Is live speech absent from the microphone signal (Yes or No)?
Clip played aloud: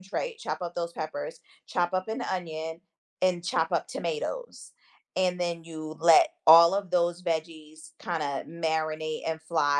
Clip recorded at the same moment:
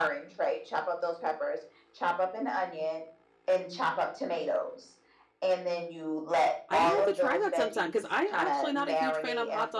No